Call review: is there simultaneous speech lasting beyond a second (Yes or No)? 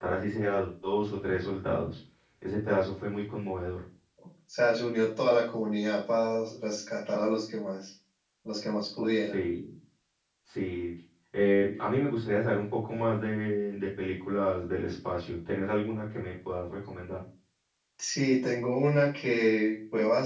No